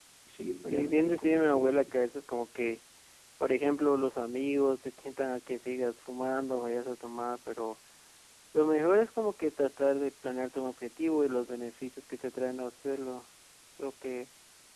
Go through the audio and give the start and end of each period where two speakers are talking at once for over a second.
0.7-1.9

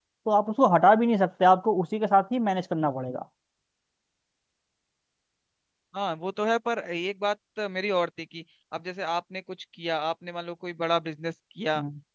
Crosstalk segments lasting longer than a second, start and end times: none

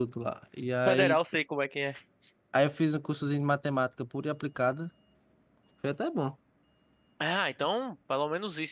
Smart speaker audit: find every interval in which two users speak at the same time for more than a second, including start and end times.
none

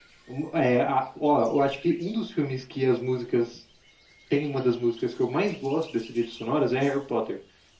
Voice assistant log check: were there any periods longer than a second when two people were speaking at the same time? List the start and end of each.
none

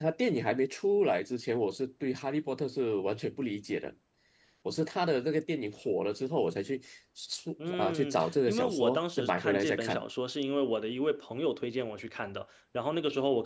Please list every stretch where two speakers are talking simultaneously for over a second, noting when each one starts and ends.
7.7-10.0

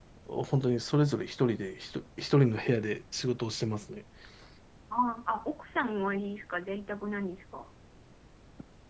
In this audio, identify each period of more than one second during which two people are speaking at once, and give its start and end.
none

